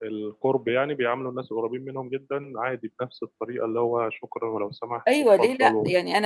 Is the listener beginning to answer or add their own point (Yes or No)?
Yes